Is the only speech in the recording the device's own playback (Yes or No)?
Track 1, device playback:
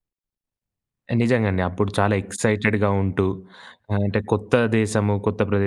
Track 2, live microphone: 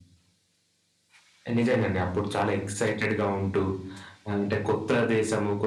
Yes